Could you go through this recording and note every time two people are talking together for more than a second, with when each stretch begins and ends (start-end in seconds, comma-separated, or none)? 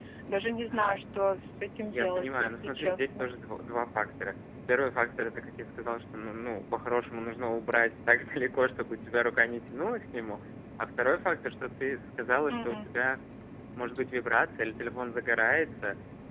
1.8-3.3